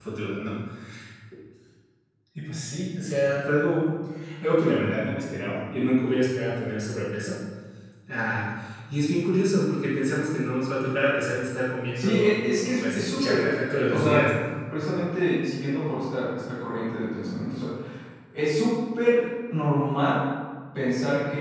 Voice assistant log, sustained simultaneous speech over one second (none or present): present